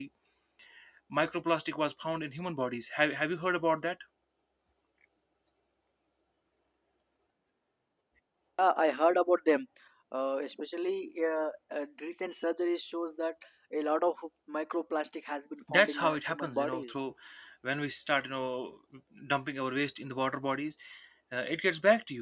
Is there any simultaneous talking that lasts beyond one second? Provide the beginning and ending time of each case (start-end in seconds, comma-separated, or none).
15.7-16.9